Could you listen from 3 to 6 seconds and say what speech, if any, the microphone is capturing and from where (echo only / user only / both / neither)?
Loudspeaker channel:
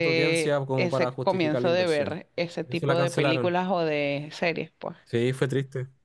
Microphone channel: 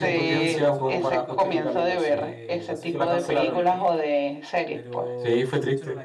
both